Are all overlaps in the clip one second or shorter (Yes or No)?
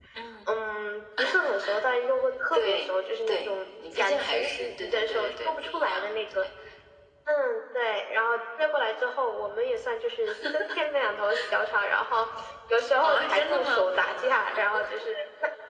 No